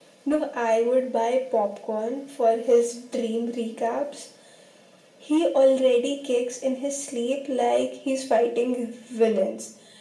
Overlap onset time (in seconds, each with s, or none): none